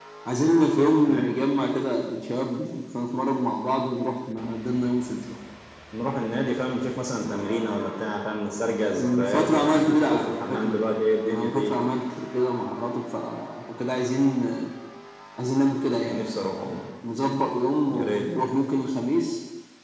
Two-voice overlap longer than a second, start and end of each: 9.0-10.8

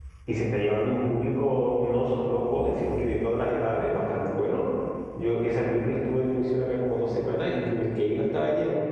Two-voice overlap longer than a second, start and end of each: none

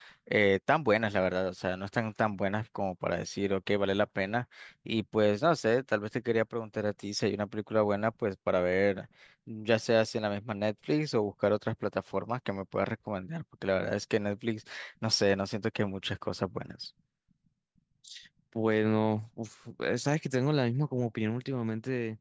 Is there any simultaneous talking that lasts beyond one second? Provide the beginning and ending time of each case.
none

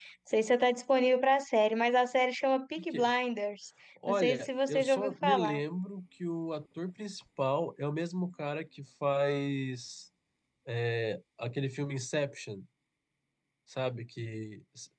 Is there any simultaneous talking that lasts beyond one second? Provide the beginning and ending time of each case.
4.1-5.6

